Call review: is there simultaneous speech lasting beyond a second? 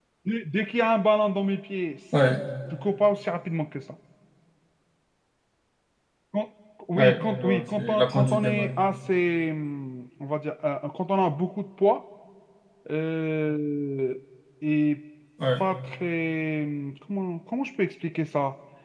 Yes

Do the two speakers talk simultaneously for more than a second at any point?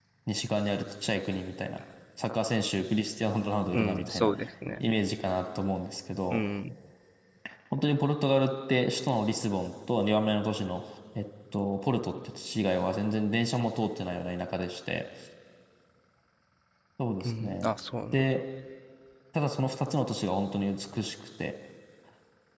No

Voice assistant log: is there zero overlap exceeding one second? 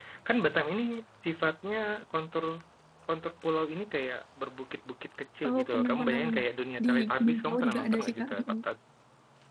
No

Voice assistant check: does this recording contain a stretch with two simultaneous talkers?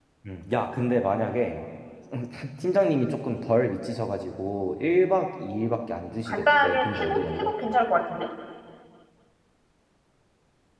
Yes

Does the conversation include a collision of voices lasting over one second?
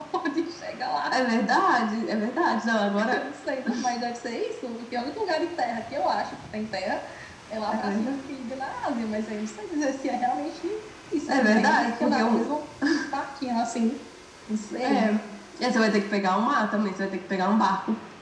Yes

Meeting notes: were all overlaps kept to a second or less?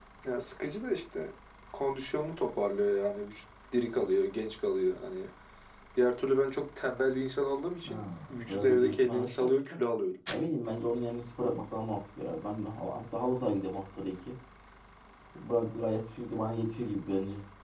No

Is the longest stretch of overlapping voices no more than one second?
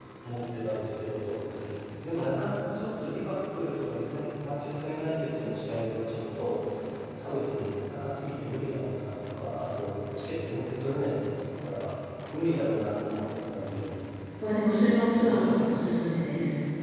Yes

